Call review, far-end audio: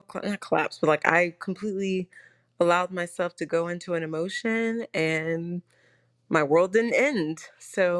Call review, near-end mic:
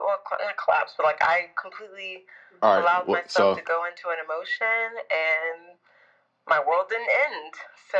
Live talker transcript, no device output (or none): All right. Well, so,